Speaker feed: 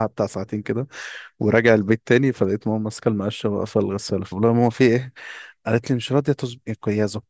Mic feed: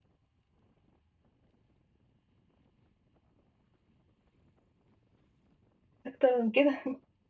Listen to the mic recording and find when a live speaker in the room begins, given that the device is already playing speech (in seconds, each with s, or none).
6.1 s